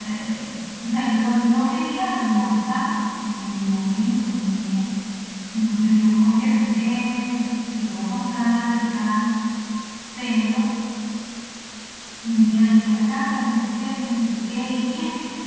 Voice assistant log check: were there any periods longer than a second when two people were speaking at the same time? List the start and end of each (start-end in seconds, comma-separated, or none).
none